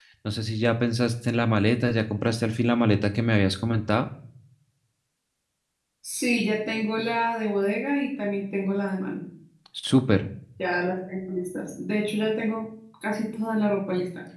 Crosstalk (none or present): none